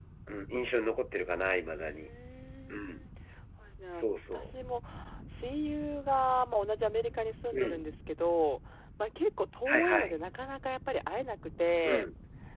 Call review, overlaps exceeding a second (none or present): none